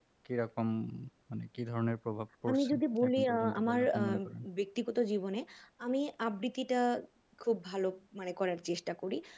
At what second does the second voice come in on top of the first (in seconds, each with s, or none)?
2.5 s